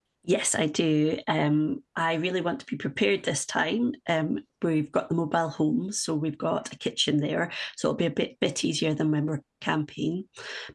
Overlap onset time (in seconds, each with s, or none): none